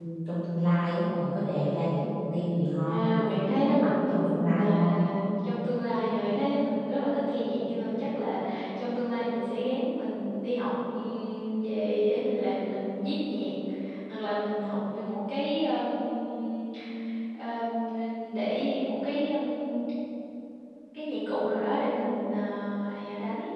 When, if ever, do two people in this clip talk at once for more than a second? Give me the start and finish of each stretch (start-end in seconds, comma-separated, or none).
2.8-5.0